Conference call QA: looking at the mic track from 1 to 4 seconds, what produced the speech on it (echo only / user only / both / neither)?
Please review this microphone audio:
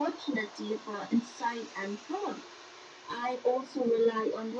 echo only